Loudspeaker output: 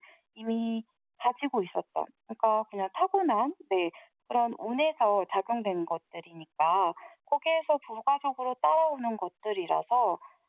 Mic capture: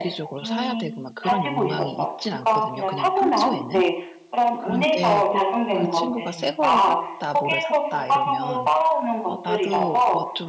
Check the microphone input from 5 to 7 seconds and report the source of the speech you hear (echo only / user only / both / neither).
both